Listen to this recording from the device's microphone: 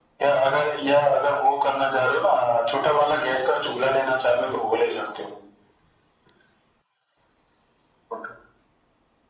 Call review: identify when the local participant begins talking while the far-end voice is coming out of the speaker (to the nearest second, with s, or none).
none